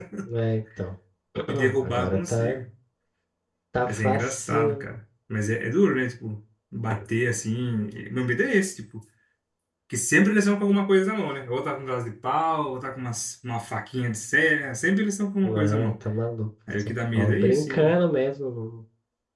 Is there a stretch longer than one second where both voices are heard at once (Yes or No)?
Yes